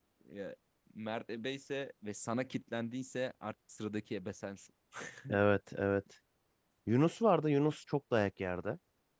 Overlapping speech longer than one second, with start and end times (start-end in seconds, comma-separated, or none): none